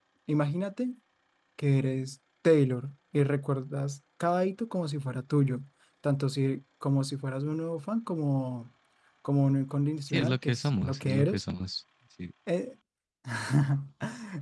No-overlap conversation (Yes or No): No